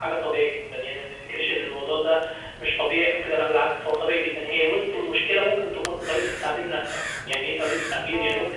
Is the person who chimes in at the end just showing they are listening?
Yes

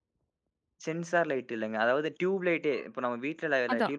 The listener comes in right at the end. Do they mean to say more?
Yes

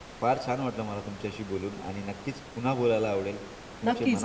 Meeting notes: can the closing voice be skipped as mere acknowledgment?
No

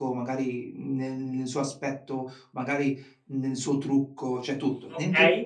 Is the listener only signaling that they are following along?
No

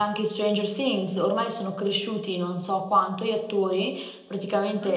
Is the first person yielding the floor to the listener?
No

